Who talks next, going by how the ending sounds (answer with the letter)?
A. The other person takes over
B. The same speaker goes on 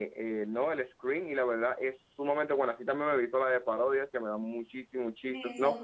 A